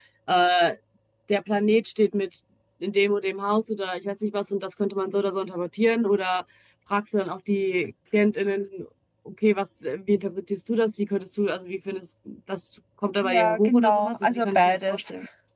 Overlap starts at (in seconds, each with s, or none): 13.2 s